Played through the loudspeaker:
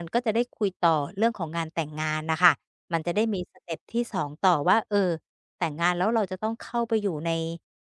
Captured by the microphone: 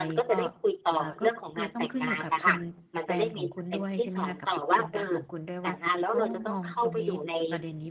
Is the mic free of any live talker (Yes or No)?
No